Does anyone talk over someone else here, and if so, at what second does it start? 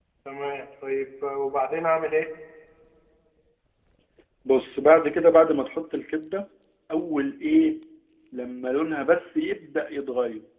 none

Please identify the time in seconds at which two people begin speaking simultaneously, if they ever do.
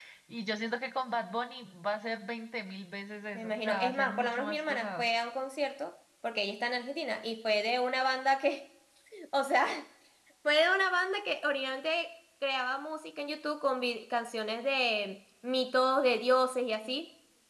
3 s

